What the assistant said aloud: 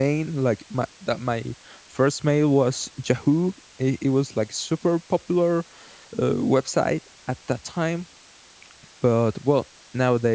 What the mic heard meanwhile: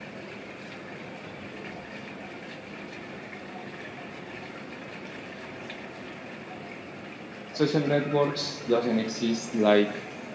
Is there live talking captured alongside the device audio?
Yes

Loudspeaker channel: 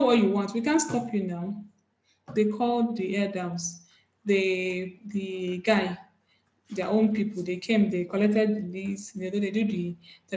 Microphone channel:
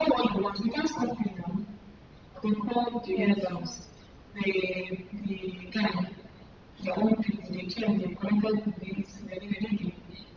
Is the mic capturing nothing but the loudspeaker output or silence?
No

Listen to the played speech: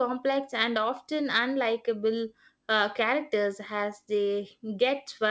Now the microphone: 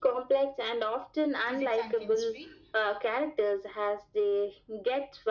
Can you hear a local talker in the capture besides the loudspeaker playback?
Yes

